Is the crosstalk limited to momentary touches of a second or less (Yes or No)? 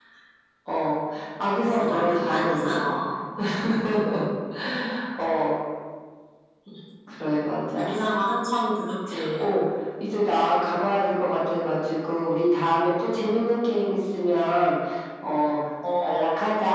No